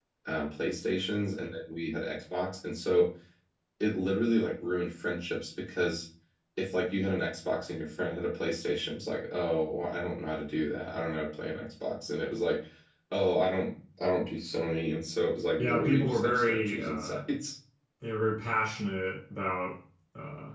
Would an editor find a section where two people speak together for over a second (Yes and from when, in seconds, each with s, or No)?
Yes, from 15.6 s